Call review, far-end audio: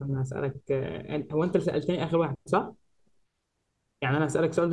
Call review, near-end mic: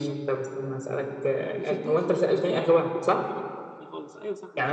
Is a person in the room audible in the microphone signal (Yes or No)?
Yes